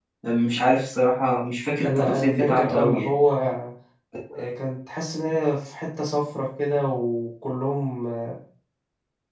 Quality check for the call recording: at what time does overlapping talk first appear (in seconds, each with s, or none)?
1.8 s